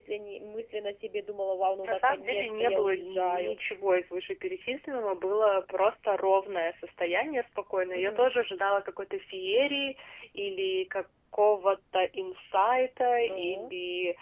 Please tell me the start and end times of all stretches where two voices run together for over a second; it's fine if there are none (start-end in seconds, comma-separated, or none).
1.9-3.6